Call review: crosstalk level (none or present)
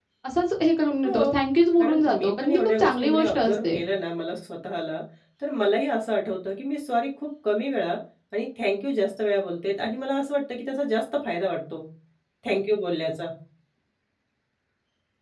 present